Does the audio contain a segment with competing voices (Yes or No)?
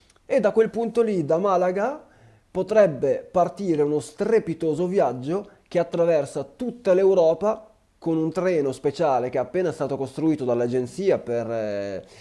No